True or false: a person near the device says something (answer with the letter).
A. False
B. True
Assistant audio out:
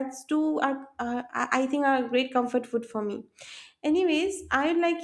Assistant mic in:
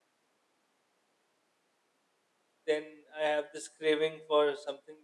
B